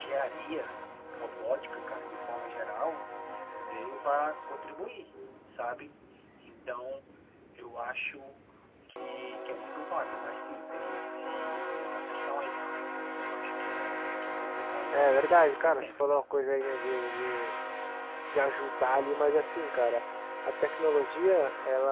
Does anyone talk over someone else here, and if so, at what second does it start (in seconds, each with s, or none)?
14.9 s